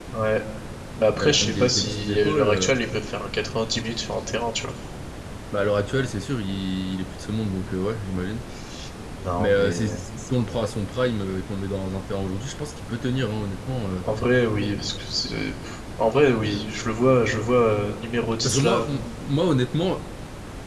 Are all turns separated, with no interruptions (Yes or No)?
No